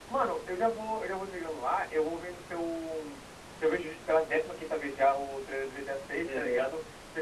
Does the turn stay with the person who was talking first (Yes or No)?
Yes